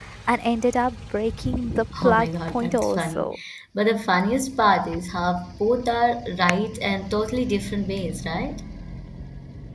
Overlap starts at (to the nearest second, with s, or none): 2 s